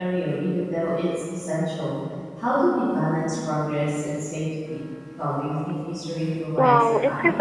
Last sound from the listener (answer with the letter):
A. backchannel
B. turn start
B